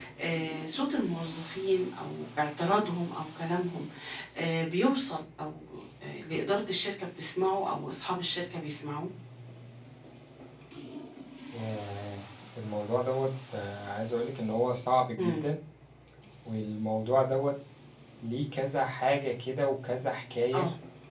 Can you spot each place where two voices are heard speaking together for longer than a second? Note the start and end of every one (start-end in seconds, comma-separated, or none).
none